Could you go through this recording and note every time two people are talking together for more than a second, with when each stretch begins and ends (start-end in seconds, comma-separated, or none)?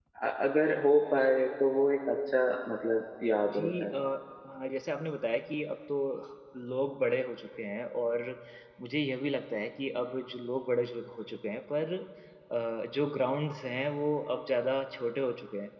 none